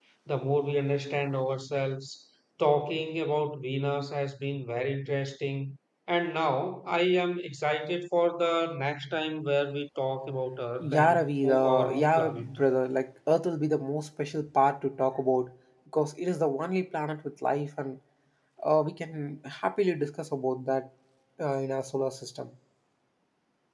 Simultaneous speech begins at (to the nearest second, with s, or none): 11 s